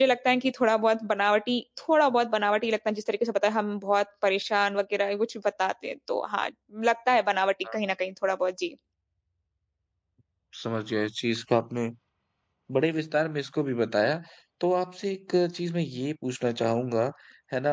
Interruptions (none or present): none